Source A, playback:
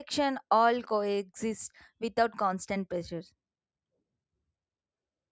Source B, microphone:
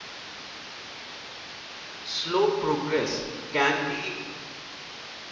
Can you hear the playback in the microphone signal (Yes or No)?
No